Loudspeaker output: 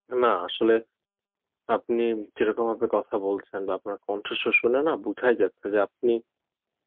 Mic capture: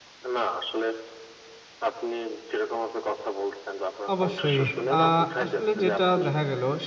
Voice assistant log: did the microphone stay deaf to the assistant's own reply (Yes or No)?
No